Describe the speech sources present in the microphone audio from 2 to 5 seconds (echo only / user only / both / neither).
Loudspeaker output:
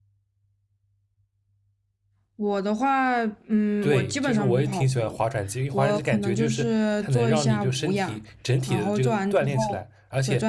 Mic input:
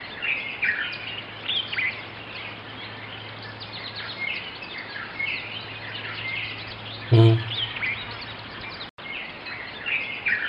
neither